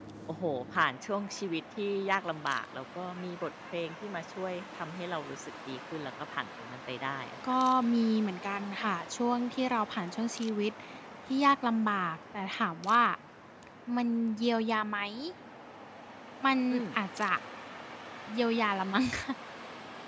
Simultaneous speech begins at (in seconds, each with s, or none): none